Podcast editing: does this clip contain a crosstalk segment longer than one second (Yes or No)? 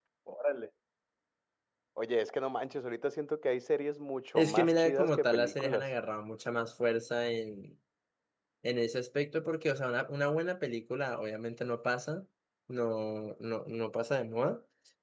Yes